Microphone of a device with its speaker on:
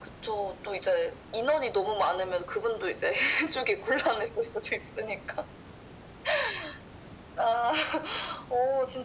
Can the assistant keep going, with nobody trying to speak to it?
Yes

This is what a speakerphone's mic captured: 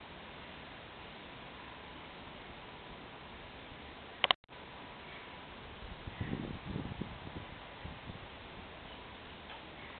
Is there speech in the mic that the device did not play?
No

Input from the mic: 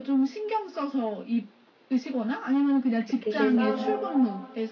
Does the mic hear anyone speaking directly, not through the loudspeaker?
Yes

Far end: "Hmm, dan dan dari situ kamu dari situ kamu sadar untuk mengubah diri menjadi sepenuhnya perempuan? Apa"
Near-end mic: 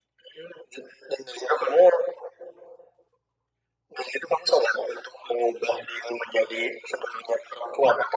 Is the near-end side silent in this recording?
Yes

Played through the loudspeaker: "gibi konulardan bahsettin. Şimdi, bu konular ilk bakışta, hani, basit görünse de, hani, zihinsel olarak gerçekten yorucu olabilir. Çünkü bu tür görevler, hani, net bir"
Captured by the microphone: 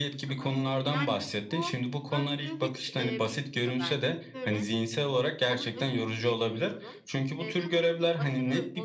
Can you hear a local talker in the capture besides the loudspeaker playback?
Yes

